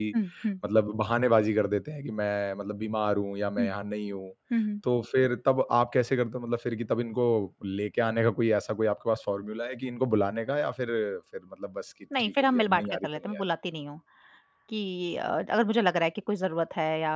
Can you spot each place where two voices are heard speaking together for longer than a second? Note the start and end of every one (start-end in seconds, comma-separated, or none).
12.2-13.4